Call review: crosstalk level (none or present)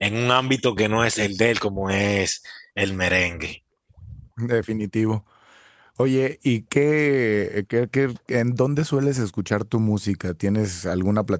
none